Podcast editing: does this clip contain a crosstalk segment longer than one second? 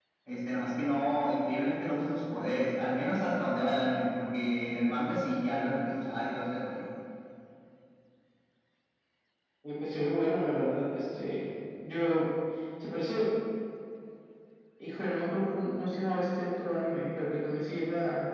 No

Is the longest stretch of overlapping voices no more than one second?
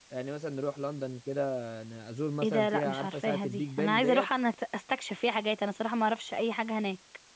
No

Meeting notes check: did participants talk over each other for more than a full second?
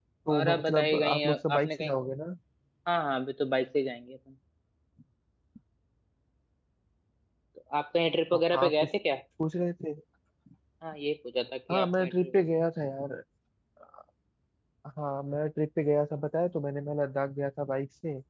Yes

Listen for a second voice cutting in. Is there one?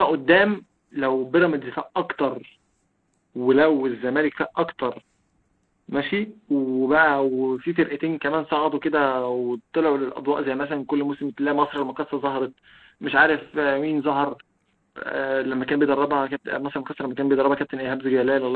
No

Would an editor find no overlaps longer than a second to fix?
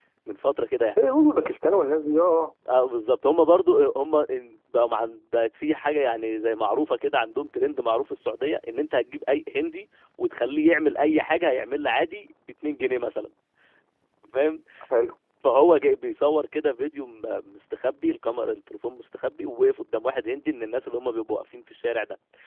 Yes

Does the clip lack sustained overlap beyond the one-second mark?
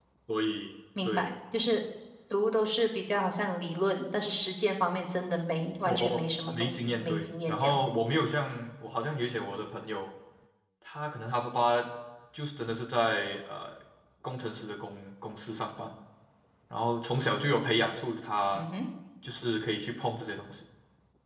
No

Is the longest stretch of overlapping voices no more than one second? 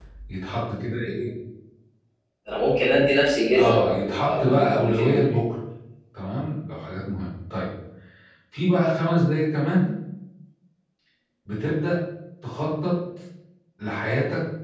No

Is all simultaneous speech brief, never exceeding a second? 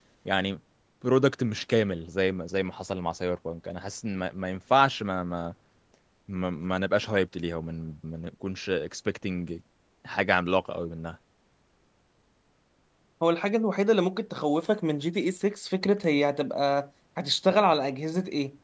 Yes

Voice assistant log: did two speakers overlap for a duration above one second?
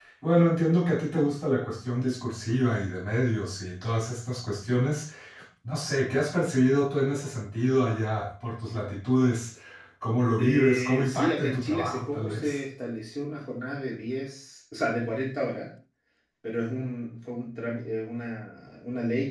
Yes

